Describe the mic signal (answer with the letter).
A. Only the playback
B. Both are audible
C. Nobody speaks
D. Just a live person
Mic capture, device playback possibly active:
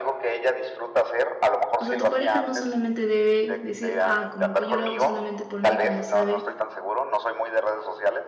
B